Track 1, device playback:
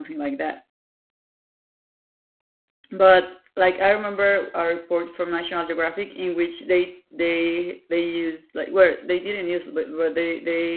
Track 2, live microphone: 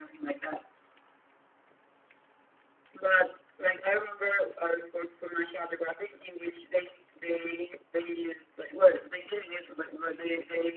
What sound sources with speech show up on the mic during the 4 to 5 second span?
echo only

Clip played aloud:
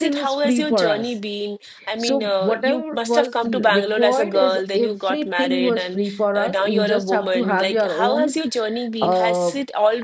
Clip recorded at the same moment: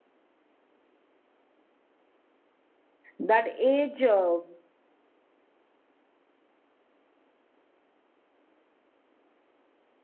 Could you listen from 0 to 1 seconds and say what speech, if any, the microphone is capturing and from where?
neither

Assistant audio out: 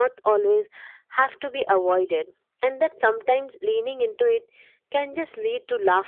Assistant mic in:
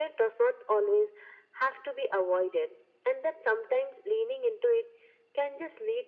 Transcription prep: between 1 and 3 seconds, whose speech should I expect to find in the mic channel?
echo only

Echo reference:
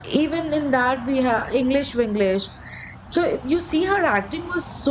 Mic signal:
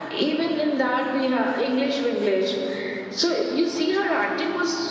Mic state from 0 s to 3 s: echo only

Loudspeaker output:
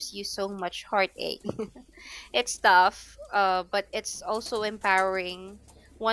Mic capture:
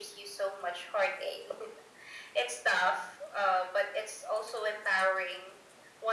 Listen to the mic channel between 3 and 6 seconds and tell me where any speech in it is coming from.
echo only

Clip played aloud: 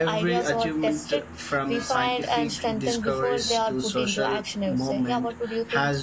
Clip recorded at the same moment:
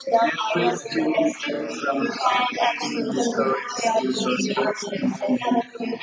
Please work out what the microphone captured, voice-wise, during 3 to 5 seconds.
echo only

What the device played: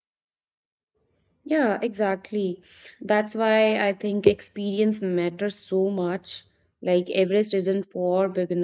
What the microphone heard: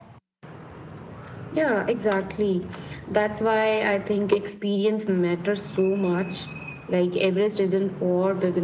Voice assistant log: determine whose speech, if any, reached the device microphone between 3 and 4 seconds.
echo only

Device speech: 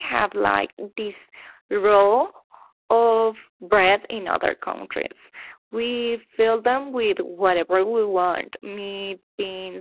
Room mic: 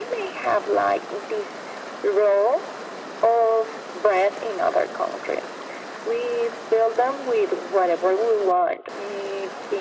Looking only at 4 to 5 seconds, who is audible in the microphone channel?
echo only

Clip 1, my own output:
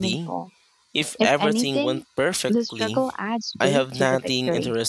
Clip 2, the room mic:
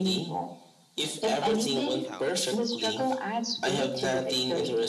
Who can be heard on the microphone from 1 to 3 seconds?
both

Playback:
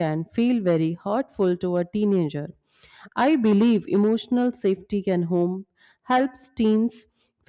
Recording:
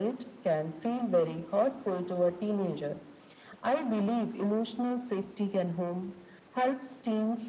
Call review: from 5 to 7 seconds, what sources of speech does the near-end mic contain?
echo only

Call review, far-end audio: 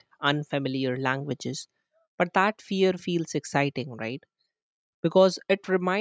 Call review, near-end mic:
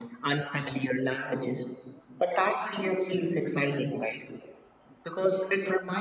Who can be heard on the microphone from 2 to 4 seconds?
echo only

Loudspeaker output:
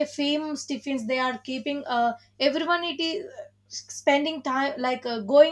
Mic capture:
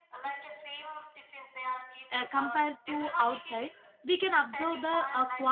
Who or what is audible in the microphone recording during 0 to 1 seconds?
echo only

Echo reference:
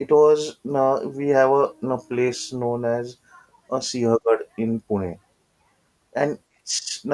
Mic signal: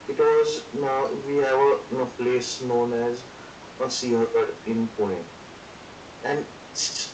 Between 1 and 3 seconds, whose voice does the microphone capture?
echo only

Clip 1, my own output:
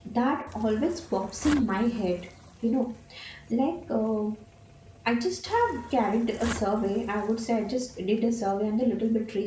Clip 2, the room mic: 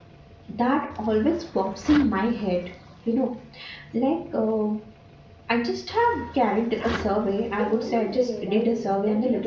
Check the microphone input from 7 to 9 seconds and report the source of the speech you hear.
both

